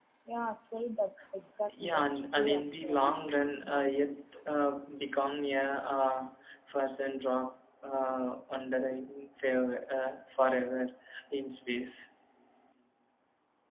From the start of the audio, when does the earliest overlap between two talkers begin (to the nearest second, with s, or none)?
2 s